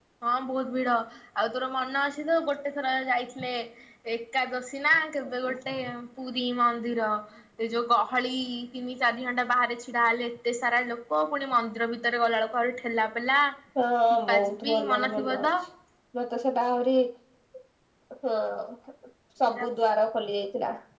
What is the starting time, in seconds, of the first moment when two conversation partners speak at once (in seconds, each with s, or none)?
14.3 s